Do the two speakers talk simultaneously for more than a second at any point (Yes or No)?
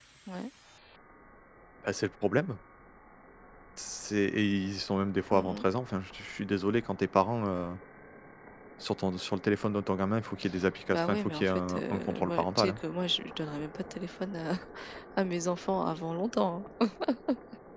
Yes